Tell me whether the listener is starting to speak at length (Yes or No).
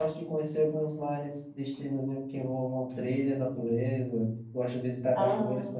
No